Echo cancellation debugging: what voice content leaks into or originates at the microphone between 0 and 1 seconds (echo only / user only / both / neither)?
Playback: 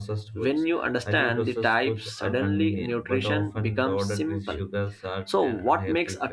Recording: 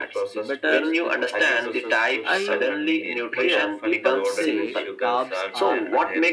both